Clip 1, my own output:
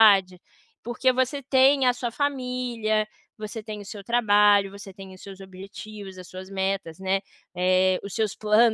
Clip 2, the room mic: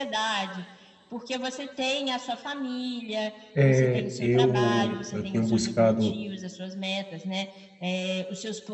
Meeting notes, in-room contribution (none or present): present